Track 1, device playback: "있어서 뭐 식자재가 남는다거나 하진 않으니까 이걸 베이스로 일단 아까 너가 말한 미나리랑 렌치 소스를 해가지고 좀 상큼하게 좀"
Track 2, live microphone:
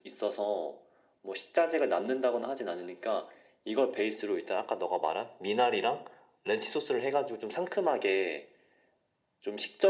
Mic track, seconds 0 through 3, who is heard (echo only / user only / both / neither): echo only